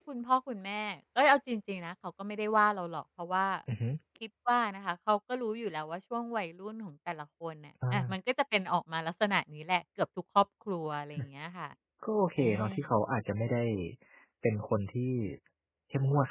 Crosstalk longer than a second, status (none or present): none